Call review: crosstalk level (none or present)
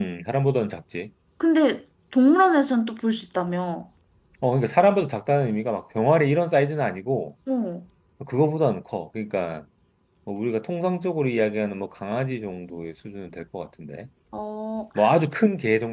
none